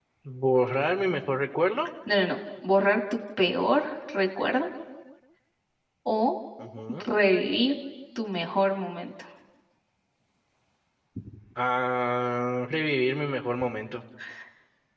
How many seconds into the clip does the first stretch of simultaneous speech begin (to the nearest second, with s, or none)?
none